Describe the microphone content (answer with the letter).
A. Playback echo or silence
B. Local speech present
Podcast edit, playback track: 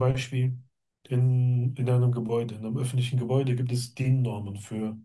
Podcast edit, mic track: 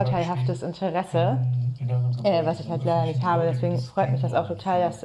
B